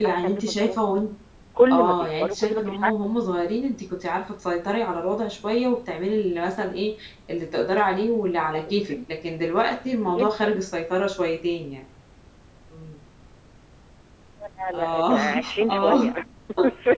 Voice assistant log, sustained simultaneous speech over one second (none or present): present